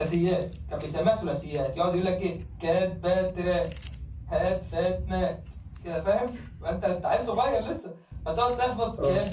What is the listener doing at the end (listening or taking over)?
listening